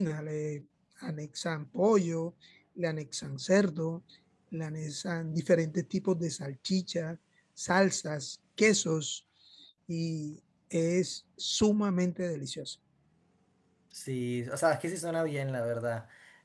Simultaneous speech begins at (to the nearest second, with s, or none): none